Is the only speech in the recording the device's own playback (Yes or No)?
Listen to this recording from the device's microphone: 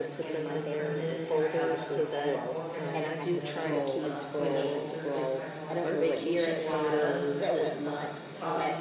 No